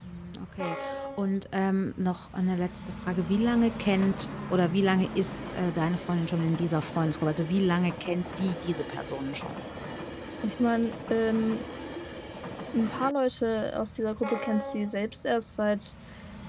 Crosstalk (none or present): none